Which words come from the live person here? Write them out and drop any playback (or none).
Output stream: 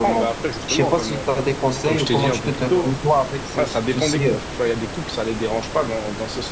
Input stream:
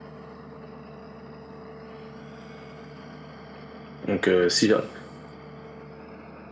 Donc, euh, si, ja-,